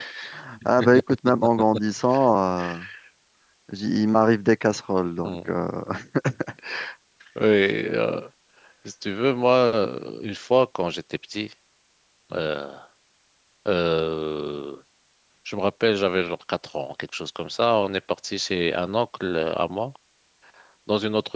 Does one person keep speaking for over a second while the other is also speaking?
No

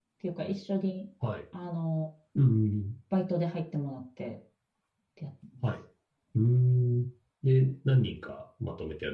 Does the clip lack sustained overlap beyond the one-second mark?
Yes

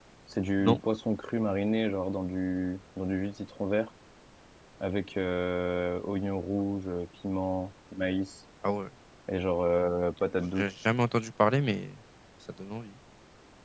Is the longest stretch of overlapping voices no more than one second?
Yes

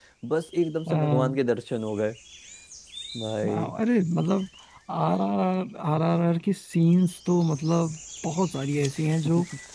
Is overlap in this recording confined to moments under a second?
Yes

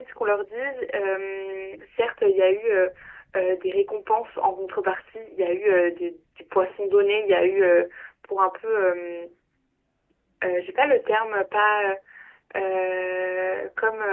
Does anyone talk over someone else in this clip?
No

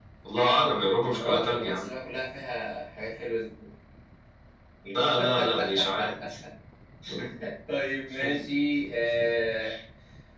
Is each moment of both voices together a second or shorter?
No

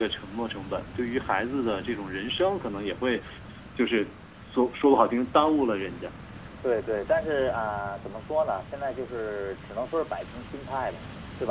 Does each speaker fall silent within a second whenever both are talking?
Yes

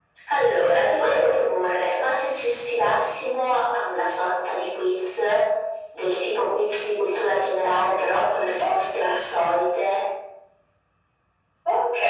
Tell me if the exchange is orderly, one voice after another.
No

